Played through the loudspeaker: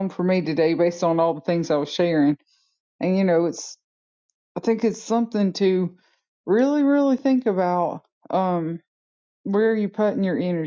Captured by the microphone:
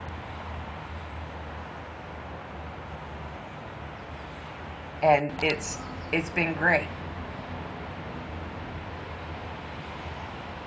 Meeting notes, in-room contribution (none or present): present